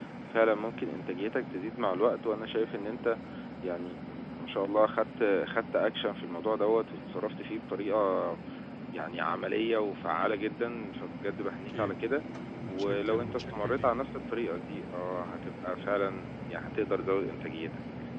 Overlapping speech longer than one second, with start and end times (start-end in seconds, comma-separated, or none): 12.7-13.9